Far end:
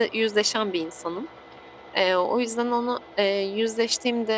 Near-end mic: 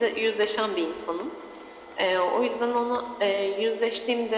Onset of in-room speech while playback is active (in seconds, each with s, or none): none